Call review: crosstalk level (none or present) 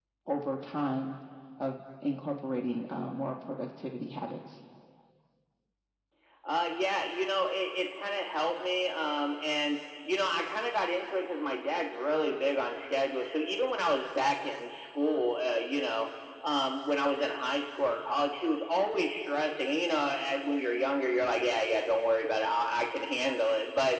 none